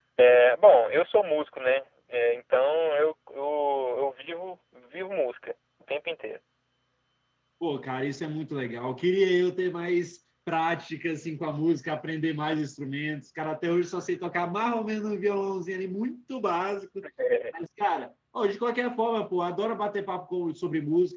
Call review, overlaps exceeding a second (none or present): none